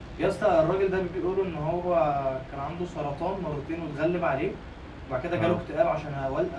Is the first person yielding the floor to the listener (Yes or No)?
No